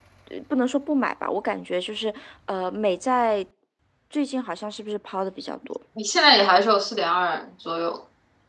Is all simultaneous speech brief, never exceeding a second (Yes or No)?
Yes